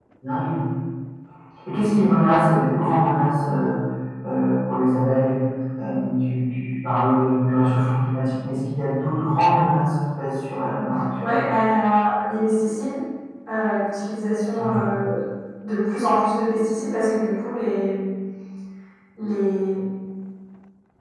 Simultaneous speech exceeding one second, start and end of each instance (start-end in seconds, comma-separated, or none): none